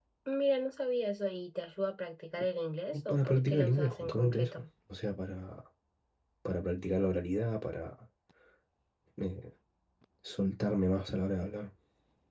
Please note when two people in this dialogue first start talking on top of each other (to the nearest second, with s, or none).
3 s